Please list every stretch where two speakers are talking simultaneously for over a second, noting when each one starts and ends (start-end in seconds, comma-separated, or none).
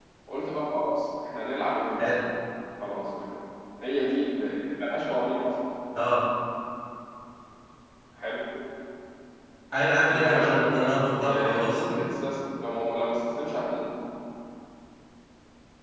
10.0-11.8